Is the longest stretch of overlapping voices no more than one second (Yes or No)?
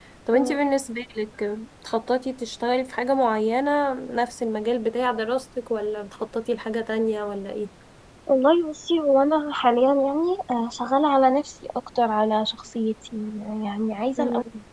Yes